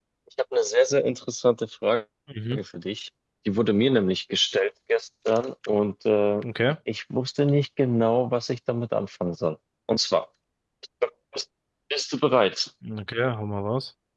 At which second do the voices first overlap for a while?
none

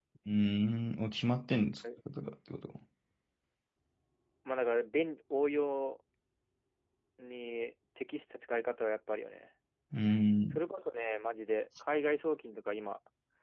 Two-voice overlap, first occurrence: none

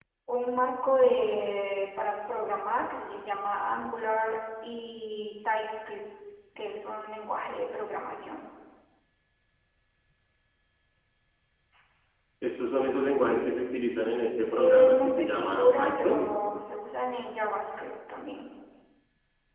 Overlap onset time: 15 s

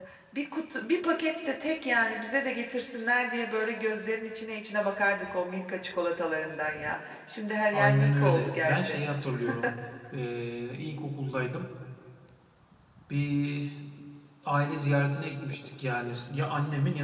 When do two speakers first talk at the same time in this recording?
8 s

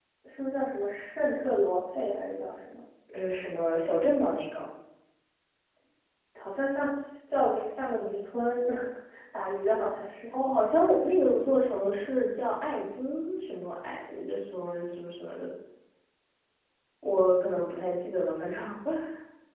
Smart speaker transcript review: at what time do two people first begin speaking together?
none

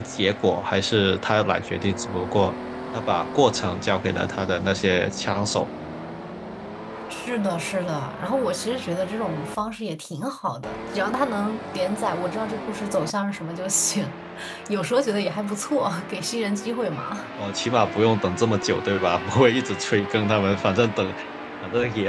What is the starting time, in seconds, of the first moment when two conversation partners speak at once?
none

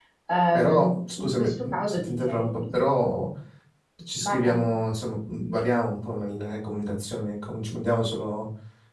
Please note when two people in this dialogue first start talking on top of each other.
1 s

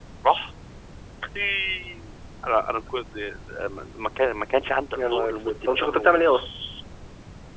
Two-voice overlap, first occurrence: 5 s

